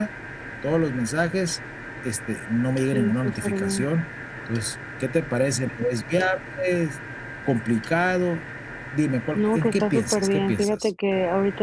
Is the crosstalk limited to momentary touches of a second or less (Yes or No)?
No